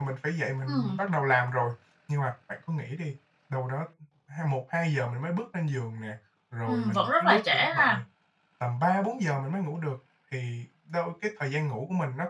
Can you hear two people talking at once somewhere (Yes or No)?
Yes